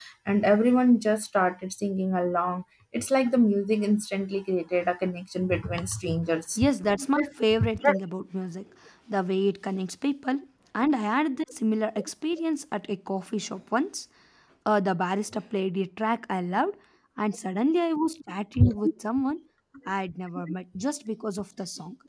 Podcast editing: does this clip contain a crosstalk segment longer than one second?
No

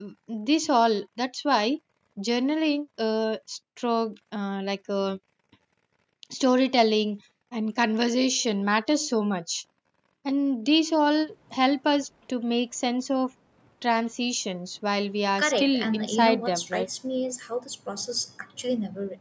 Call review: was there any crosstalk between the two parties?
Yes, from 15.3 s

